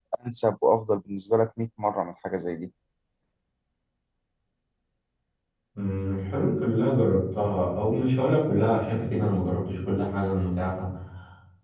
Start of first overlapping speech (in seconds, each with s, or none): none